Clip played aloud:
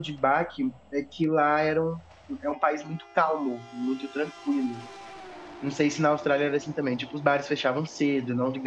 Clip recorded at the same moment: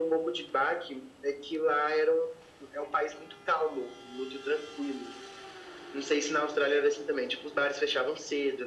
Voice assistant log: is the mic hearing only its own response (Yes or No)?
Yes